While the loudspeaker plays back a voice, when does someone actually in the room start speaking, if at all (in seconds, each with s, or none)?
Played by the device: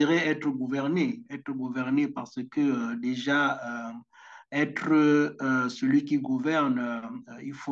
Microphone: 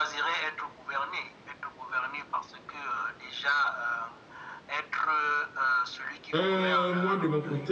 6.3 s